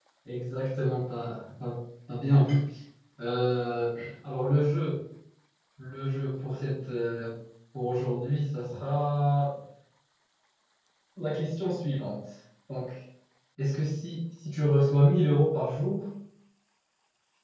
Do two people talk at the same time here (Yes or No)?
No